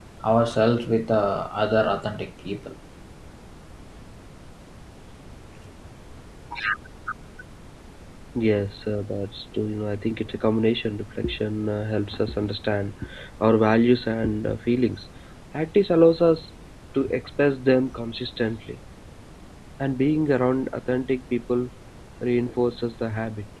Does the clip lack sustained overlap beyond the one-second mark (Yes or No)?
Yes